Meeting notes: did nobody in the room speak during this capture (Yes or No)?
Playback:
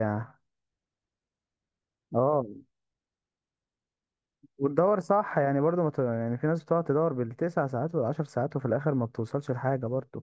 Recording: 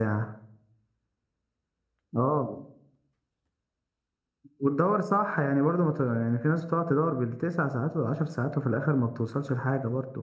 Yes